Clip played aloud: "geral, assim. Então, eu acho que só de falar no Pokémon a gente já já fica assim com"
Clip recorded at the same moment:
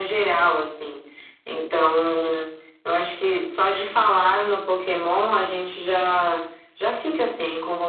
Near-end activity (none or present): none